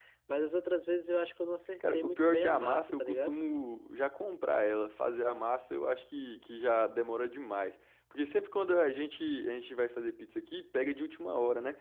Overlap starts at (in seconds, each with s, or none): 1.8 s